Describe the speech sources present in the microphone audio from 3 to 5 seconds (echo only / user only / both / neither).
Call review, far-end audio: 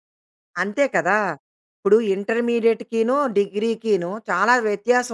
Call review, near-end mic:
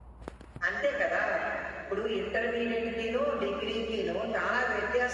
echo only